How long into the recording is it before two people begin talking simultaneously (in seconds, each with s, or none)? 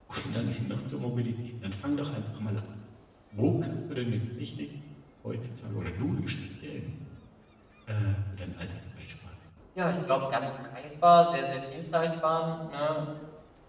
none